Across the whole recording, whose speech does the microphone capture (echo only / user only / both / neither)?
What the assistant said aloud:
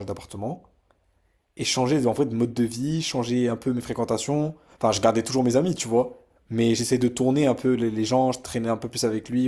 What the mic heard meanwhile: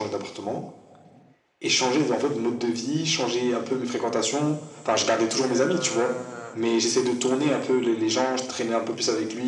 both